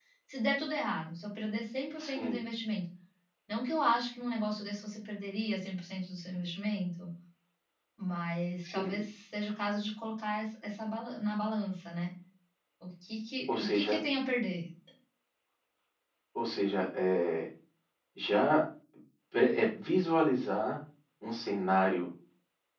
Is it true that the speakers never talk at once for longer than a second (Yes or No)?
Yes